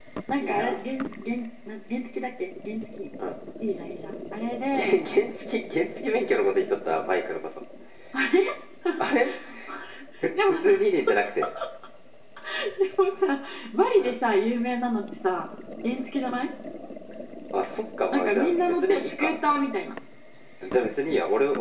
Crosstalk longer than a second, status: present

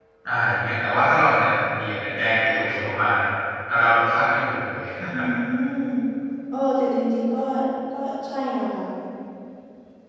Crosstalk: none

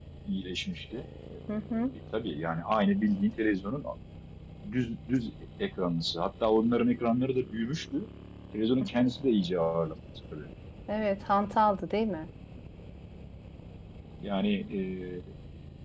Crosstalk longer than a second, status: none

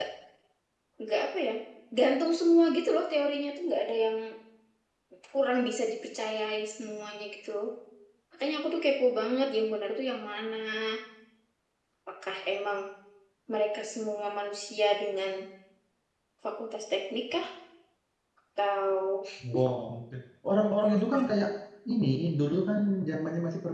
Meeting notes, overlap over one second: none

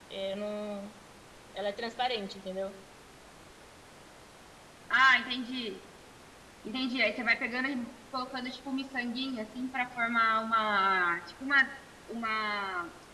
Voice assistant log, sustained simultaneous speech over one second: none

